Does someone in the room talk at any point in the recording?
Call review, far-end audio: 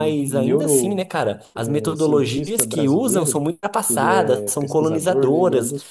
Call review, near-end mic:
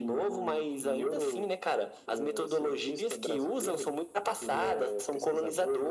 No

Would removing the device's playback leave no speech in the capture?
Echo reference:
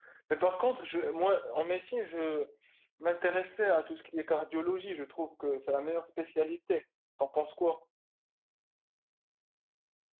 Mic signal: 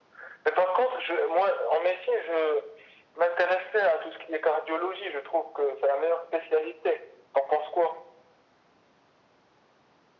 Yes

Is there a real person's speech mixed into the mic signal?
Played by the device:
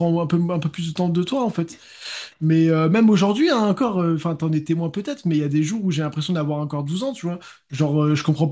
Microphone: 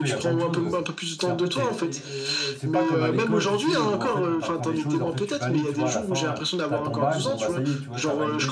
Yes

